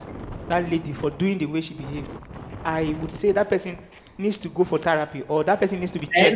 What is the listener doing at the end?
taking over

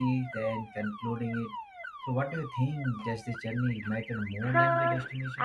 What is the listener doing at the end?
taking over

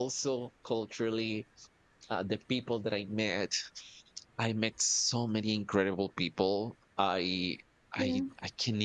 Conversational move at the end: listening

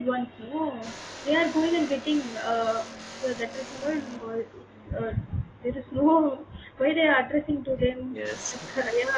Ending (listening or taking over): listening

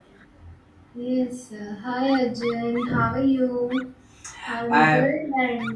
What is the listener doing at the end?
listening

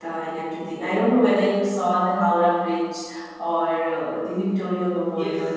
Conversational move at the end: taking over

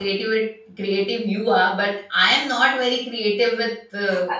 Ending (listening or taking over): taking over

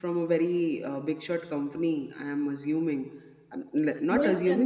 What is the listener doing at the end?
taking over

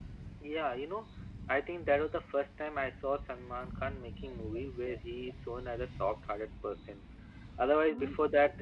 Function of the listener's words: listening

